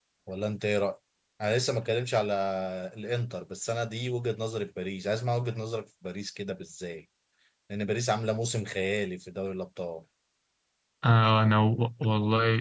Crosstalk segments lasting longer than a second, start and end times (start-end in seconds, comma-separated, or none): none